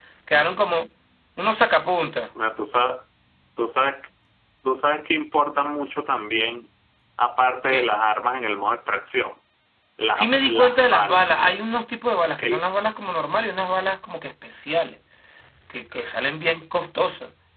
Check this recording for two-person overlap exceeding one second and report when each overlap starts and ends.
10.1-11.5

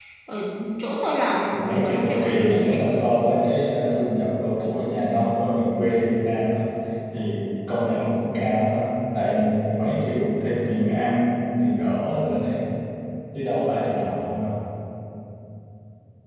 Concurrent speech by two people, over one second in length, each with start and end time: 1.5-2.8

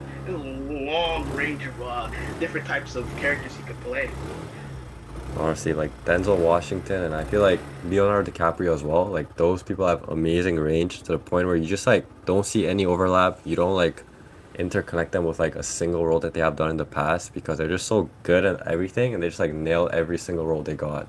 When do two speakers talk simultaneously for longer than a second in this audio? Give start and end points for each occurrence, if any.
none

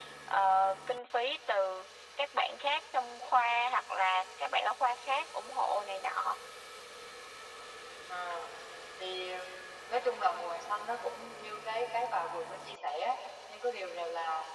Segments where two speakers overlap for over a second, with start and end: none

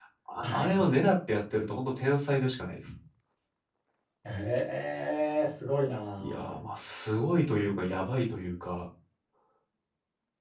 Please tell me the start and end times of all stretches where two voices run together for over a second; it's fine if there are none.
none

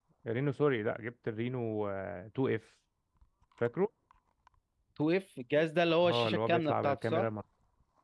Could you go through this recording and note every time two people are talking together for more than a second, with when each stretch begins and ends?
6.0-7.3

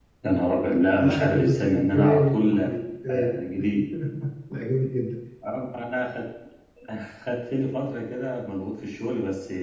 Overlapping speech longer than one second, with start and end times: 0.9-2.6

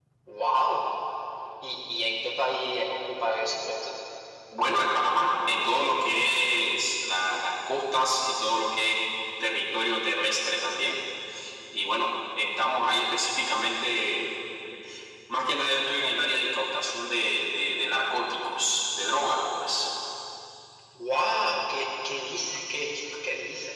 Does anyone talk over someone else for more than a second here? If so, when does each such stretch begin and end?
none

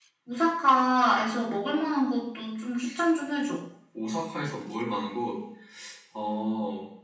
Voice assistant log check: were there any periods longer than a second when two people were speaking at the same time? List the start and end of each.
none

